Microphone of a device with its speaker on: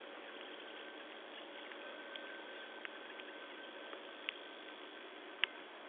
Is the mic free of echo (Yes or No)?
Yes